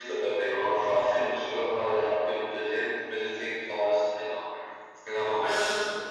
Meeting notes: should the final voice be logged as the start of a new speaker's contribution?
Yes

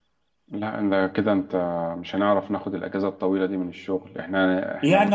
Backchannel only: No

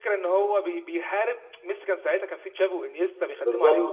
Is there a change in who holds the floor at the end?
Yes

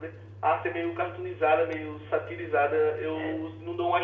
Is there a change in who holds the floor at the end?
No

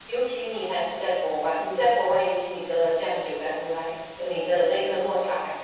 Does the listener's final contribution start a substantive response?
No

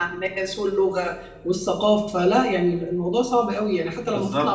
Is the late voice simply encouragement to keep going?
No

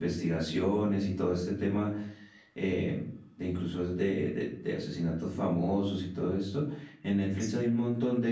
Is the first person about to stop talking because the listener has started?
No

